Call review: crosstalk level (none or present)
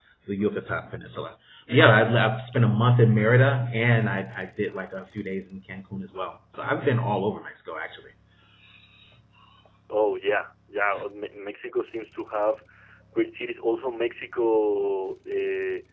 none